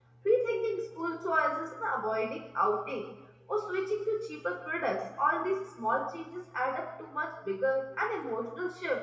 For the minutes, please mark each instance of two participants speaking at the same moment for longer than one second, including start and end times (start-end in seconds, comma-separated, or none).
none